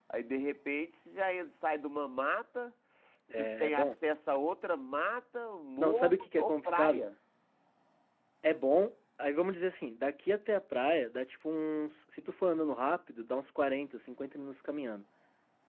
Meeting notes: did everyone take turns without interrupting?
No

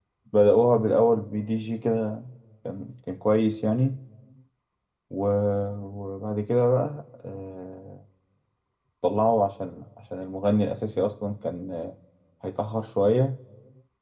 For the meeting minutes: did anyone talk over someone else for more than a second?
No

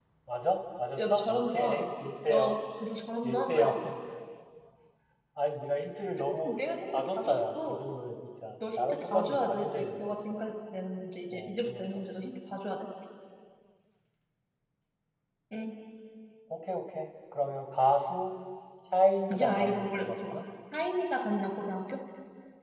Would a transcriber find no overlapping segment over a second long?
No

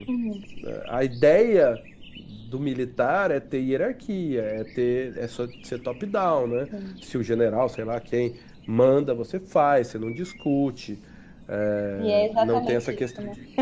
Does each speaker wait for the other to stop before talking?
No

